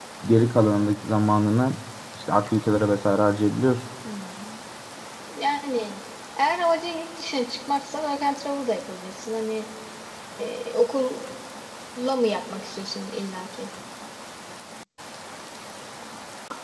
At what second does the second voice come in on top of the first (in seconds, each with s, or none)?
none